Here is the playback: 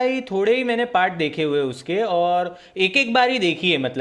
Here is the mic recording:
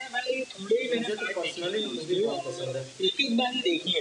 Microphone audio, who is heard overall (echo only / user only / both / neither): both